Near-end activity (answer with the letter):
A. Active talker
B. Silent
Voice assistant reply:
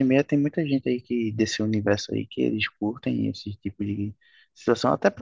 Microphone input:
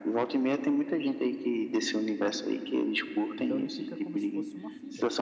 A